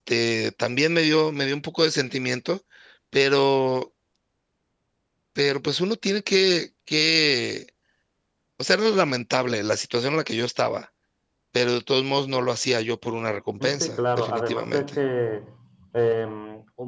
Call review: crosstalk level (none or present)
present